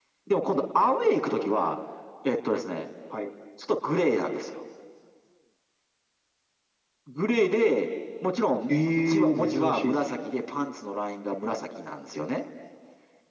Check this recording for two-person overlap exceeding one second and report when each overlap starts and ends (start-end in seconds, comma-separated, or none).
8.7-10.3